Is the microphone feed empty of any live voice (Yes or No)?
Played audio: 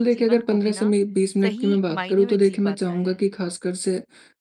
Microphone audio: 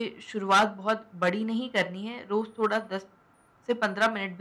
No